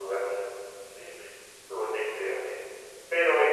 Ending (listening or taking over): listening